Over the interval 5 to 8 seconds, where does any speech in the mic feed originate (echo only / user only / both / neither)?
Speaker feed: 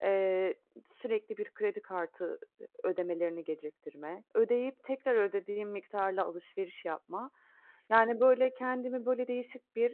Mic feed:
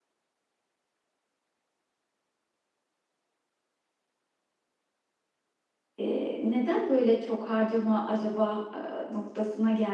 user only